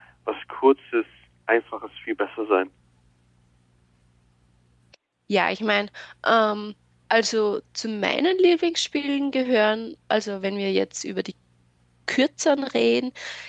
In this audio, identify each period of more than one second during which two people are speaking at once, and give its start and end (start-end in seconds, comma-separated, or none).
none